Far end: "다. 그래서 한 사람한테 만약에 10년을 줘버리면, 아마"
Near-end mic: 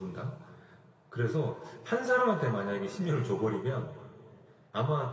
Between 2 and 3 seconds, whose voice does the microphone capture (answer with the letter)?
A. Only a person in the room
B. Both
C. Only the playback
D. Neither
C